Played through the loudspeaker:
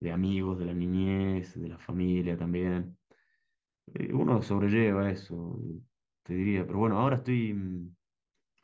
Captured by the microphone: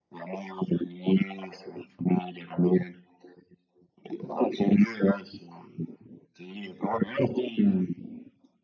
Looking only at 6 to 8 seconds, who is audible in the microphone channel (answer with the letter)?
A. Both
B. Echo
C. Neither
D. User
B